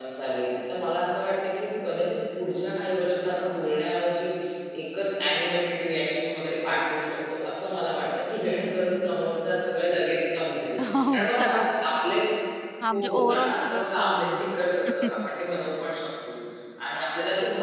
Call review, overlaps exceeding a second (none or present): present